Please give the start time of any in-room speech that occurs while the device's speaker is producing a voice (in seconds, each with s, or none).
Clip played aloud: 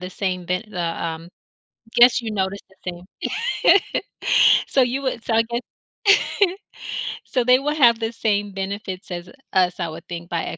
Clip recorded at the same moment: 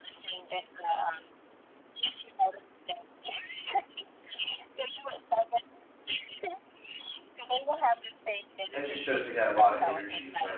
8.7 s